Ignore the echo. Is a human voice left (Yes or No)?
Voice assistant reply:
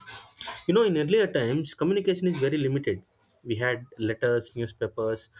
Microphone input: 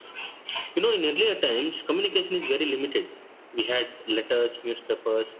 No